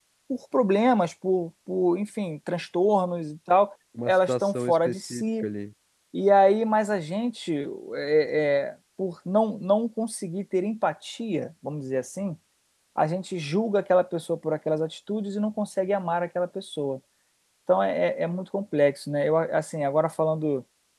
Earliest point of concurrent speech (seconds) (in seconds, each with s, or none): 4.0 s